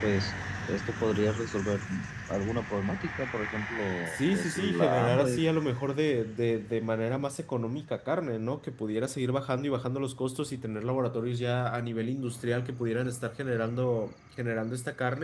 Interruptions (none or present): present